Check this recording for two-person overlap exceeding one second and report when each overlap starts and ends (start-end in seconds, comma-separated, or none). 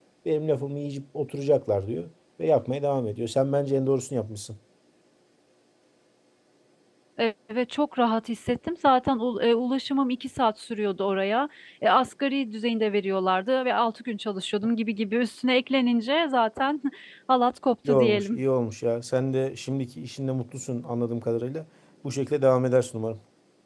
none